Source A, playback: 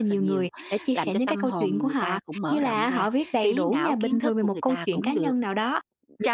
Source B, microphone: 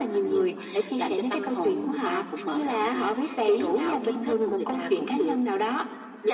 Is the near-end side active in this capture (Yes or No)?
No